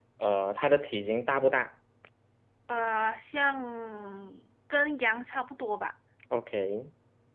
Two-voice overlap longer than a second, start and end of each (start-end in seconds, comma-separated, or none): none